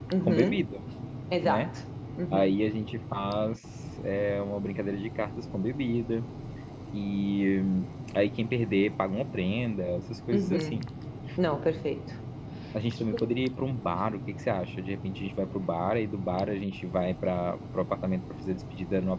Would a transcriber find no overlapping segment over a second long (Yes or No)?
Yes